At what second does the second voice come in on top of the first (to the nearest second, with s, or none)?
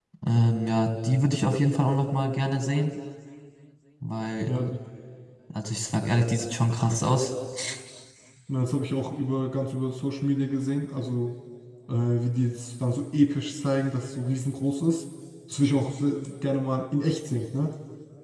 none